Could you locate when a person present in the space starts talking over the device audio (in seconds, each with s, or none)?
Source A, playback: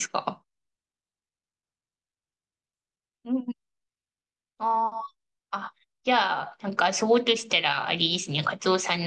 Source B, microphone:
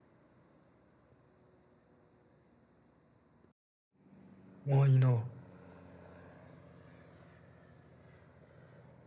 4.7 s